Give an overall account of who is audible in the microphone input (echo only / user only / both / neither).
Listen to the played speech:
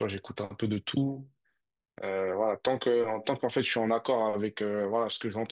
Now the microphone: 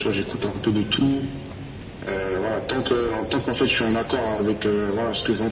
echo only